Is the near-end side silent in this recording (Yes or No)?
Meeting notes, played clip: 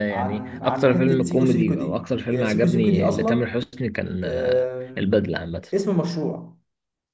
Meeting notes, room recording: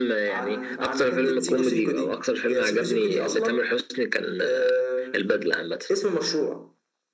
Yes